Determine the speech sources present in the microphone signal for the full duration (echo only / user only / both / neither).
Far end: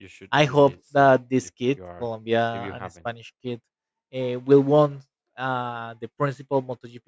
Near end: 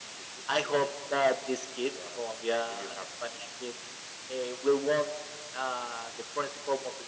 echo only